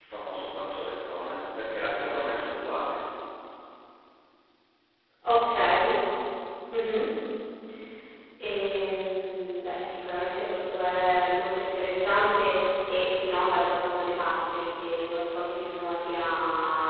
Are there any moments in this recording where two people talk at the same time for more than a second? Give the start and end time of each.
none

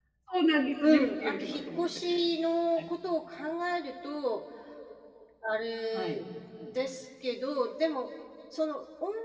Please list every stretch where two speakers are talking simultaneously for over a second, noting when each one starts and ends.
0.8-2.0

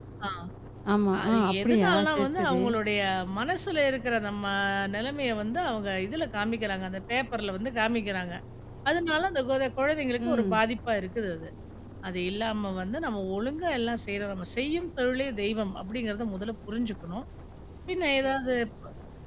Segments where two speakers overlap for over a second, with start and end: 1.2-2.6

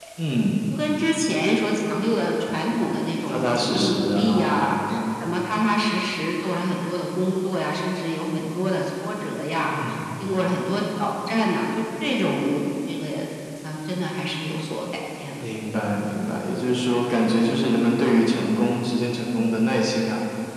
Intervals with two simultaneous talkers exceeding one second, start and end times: 3.3-4.7

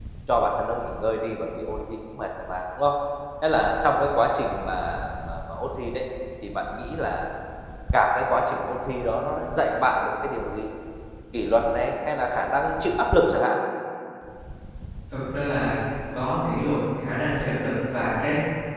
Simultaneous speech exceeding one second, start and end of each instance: none

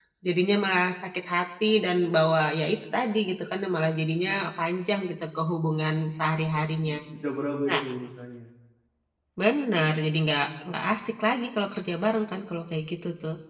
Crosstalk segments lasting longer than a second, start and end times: none

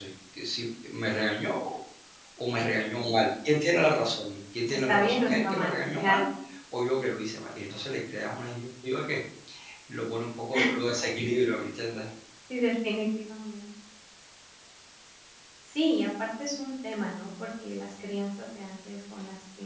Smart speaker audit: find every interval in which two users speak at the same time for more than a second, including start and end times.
4.9-6.3

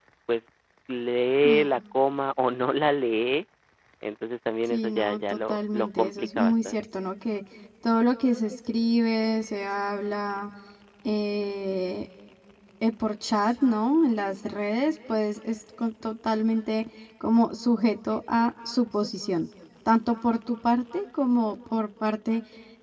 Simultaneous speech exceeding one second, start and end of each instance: 4.7-6.8

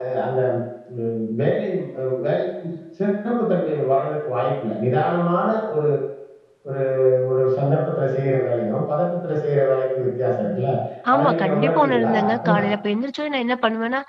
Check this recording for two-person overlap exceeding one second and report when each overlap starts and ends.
11.2-12.5

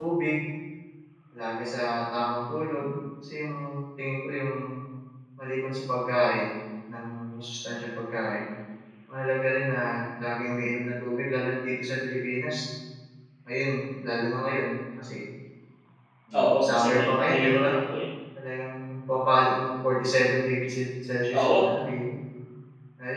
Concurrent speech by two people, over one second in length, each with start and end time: 16.4-17.7

